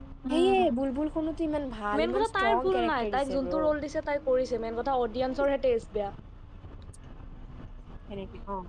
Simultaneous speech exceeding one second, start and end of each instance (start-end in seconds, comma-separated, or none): 2.0-3.5